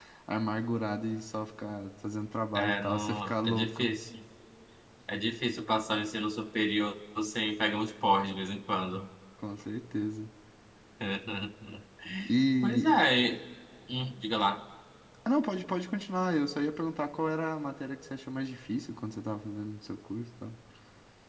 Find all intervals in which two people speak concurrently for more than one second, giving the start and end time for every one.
2.5-3.9

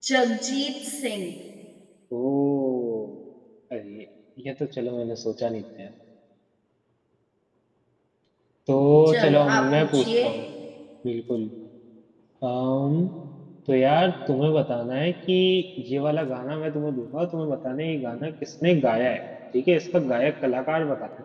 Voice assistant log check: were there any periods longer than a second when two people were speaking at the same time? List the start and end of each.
9.1-10.3

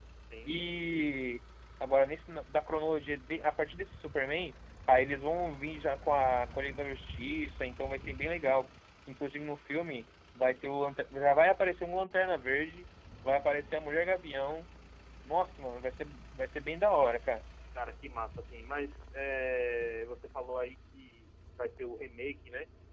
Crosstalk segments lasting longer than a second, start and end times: none

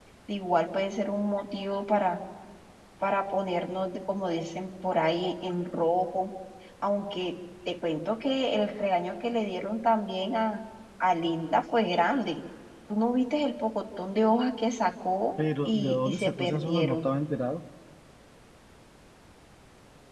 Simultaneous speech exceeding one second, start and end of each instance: 15.6-17.1

